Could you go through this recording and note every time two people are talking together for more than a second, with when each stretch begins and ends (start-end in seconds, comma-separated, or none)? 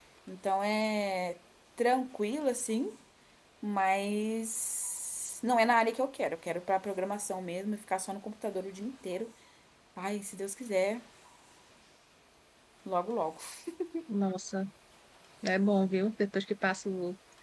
none